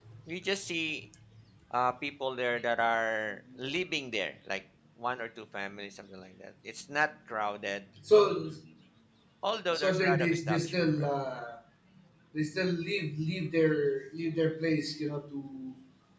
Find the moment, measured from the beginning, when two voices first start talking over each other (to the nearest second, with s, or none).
10 s